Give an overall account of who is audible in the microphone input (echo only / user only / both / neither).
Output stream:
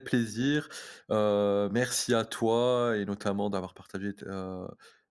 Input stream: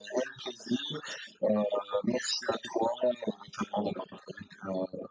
echo only